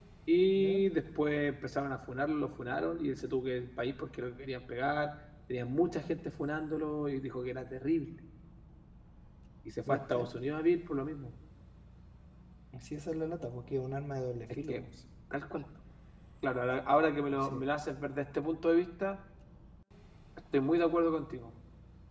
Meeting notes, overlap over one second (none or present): none